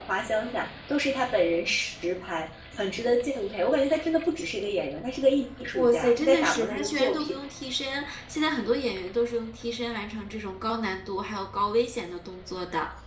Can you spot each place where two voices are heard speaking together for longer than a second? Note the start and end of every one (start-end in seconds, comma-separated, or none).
5.7-7.4